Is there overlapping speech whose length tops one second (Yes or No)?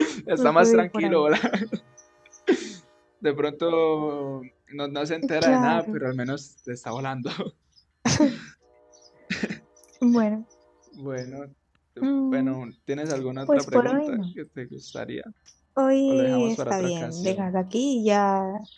Yes